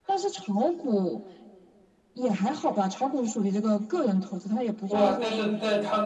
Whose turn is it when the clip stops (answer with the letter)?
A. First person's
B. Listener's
B